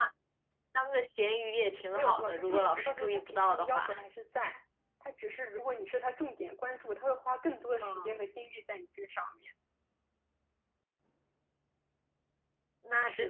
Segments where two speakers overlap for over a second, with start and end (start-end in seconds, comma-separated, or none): 1.9-3.9